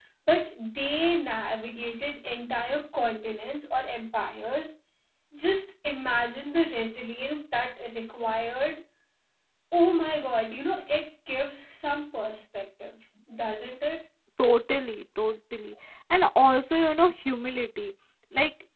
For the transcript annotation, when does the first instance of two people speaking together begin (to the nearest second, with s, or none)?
none